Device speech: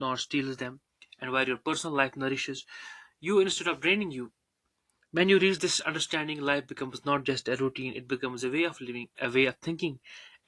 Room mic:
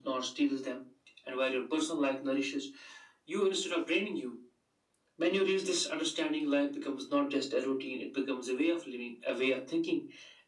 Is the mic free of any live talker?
Yes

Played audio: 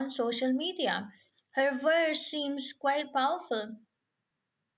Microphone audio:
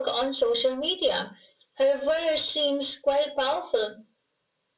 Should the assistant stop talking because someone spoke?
No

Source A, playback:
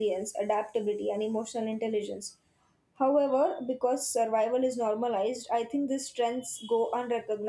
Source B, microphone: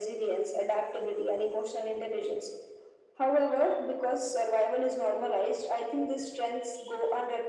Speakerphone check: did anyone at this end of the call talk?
No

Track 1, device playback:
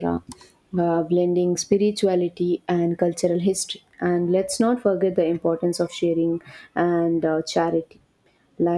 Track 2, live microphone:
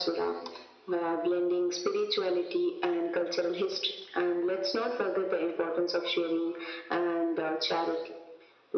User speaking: No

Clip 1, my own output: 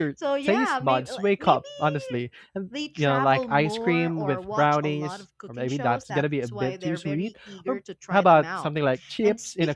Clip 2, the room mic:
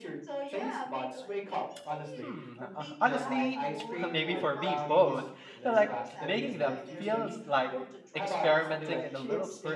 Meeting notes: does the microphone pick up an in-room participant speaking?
Yes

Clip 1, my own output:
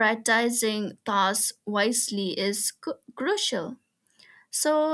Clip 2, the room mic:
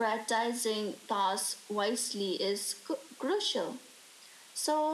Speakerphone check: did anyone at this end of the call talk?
No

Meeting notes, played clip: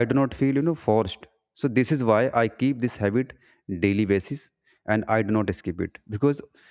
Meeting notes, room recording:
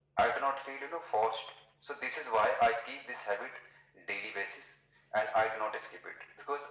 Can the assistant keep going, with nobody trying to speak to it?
Yes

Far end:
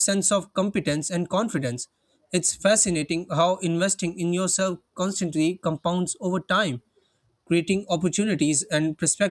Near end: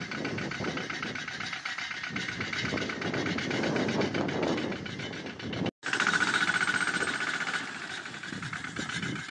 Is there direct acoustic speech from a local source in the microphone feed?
No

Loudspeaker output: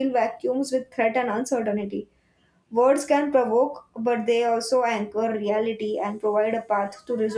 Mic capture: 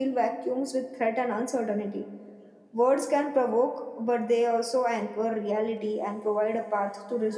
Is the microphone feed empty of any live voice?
Yes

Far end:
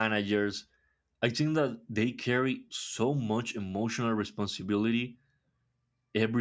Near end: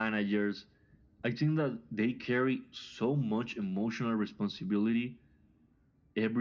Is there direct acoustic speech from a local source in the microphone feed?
No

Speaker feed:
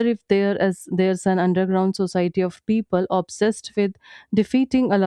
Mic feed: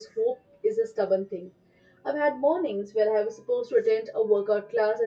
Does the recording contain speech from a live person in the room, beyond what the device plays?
Yes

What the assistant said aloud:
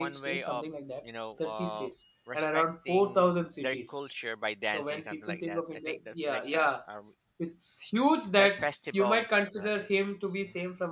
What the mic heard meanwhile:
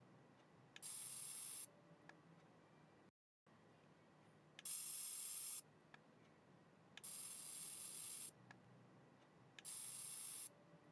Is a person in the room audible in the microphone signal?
No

